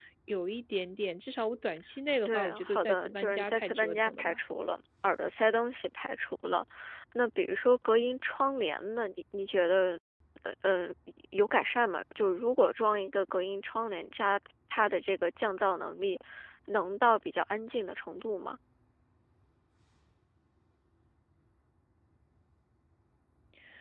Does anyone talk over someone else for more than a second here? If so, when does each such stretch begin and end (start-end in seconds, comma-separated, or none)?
2.2-4.4